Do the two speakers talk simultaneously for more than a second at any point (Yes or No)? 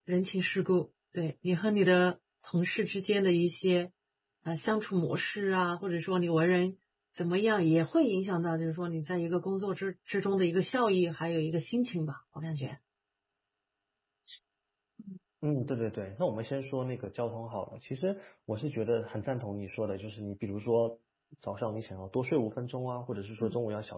No